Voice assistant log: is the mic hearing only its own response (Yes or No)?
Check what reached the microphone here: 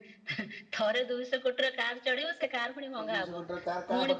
No